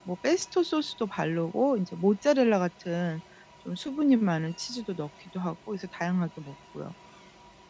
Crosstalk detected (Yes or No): No